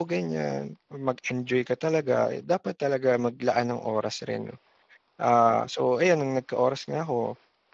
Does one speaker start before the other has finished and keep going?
No

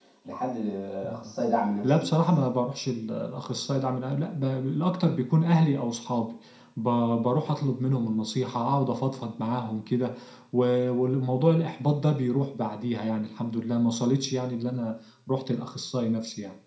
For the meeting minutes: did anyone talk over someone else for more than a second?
No

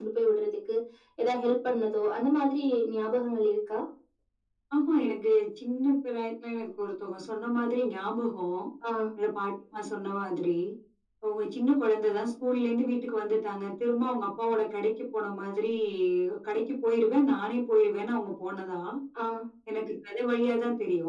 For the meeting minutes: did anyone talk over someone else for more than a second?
No

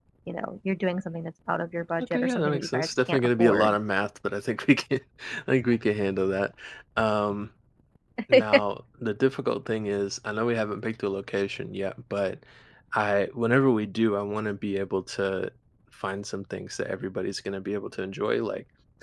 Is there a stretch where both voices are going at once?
Yes, from 2.0 s

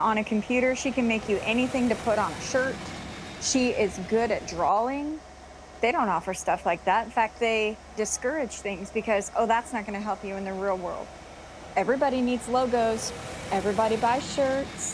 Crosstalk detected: No

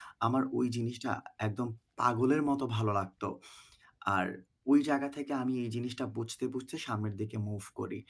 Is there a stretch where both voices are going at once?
No

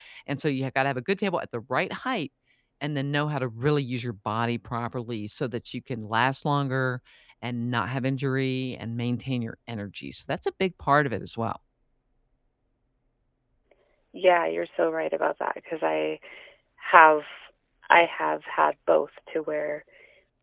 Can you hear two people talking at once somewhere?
No

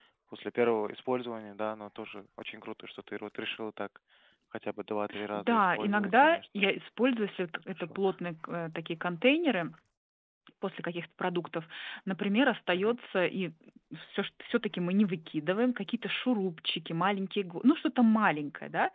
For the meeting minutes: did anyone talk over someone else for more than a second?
Yes, from 5.3 s

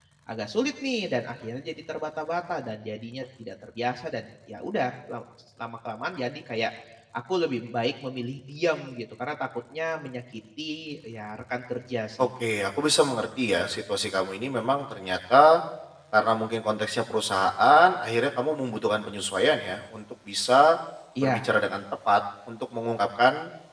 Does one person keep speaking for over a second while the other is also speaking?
No

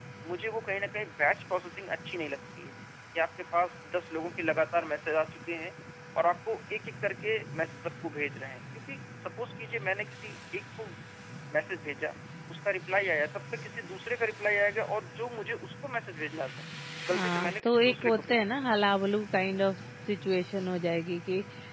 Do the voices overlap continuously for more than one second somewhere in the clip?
Yes, from 17.1 s

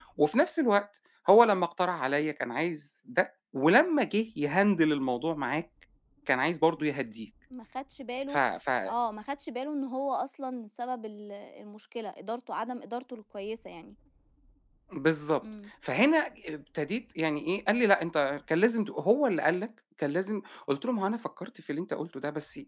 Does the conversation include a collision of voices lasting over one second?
No

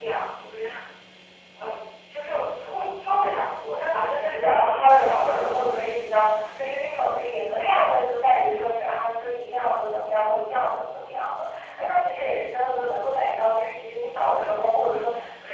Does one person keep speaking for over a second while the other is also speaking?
Yes, from 3.8 s

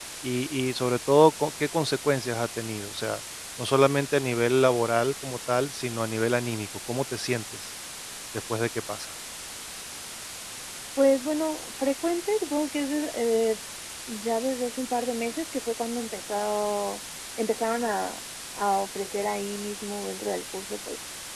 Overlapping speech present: No

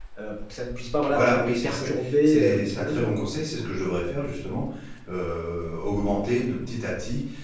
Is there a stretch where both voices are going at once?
Yes, from 1.1 s

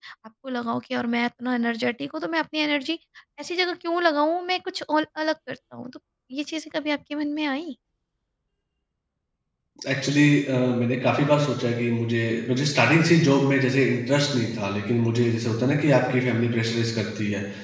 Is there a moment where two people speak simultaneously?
No

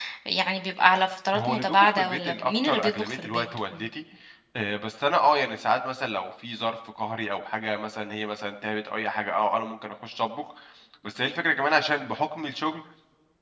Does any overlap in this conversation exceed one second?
Yes, from 1.3 s

